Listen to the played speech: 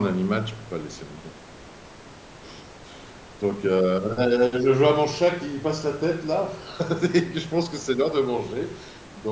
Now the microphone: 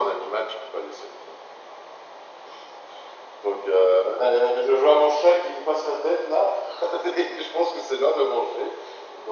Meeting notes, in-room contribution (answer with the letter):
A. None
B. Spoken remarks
A